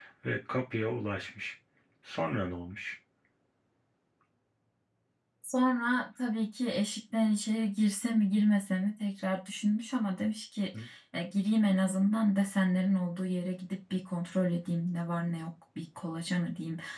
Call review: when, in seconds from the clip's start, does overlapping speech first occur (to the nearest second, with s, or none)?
none